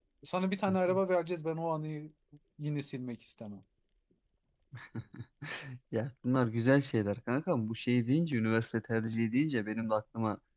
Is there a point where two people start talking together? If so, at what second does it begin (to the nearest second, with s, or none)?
none